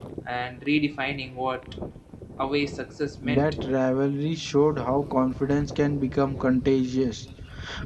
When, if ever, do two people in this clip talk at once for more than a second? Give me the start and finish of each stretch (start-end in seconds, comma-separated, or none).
none